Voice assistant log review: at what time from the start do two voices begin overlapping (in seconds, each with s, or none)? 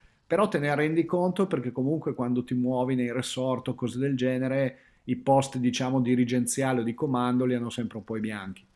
none